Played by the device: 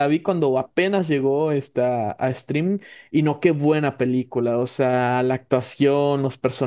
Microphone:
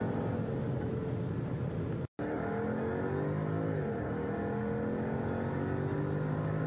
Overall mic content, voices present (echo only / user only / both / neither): neither